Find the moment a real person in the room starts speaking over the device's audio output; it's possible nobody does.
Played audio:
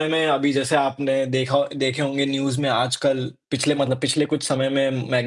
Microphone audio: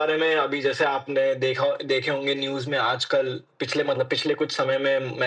none

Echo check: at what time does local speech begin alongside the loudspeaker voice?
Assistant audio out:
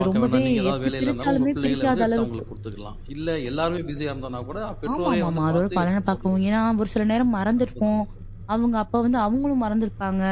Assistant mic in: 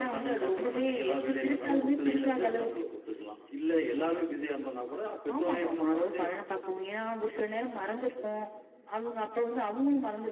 0.4 s

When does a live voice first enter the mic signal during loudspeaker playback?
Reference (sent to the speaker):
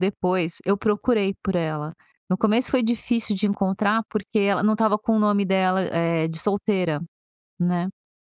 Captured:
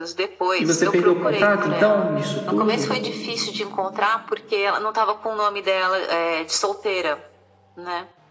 0.6 s

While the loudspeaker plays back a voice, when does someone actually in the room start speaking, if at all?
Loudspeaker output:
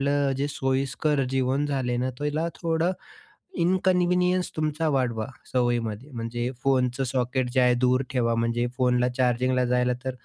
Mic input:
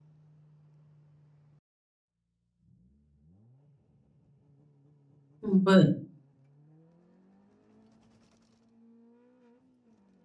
5.4 s

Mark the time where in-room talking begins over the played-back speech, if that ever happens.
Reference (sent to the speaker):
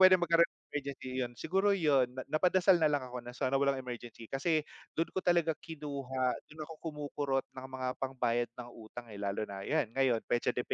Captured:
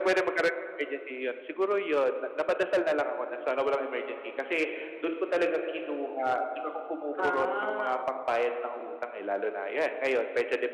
7.2 s

